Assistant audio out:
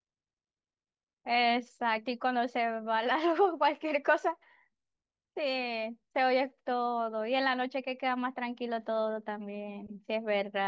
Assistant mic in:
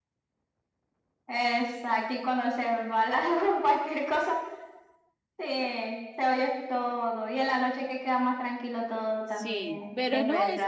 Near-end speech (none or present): present